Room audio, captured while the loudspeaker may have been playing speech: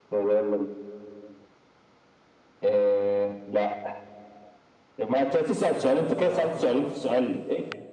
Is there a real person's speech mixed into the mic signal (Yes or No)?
Yes